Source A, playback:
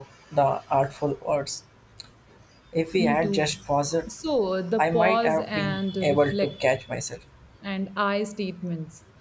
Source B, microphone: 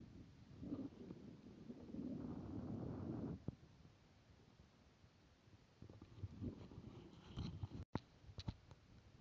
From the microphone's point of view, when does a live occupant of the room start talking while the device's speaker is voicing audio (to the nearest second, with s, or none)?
none